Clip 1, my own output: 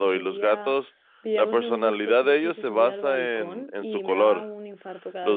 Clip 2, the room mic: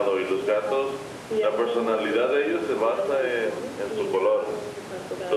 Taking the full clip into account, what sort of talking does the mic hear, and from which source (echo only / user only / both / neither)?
echo only